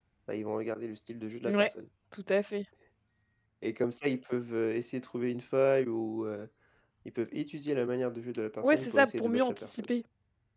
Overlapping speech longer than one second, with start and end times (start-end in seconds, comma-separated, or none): 8.6-9.9